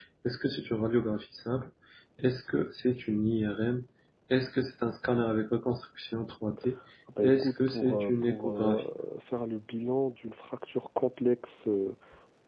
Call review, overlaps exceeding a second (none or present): present